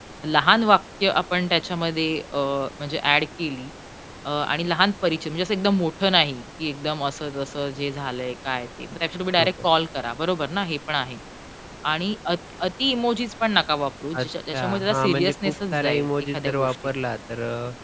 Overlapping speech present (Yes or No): Yes